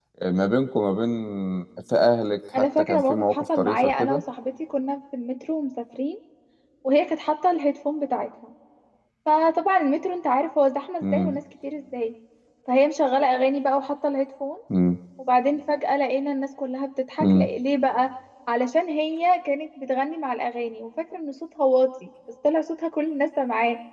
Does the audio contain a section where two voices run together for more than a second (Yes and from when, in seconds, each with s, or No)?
Yes, from 2.6 s